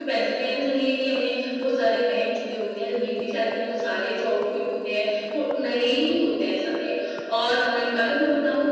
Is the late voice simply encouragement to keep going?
Yes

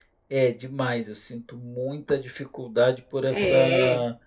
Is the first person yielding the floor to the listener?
No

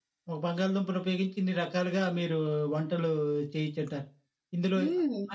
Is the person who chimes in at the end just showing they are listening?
Yes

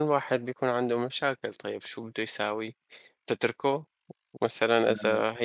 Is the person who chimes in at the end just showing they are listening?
Yes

